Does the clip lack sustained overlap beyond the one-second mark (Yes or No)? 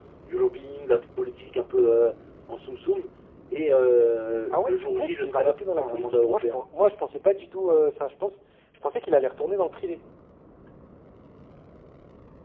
No